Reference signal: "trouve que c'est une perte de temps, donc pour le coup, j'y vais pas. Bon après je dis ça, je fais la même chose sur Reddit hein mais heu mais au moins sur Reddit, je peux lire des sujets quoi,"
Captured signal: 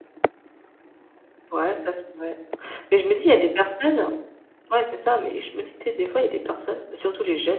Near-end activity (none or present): present